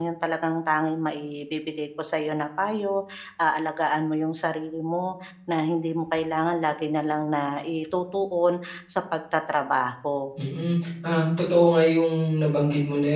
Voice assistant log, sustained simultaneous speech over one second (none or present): none